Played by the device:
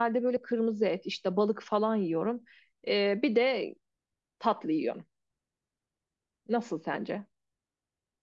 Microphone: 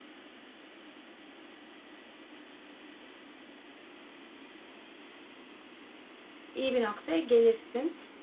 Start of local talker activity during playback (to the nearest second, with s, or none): 7 s